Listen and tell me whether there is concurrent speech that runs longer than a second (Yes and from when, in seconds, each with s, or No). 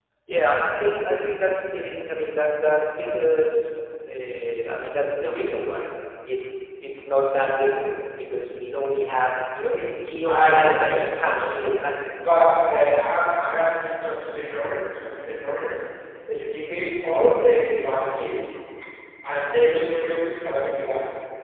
Yes, from 10.3 s